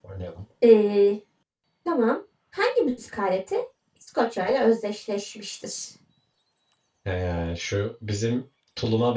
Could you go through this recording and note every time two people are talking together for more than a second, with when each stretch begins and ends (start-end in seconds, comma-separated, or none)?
none